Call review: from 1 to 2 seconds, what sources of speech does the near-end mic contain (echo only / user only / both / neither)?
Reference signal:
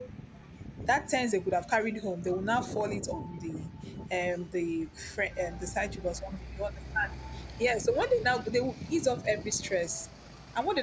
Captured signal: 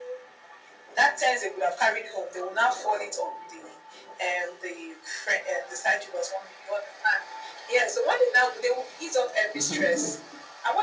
echo only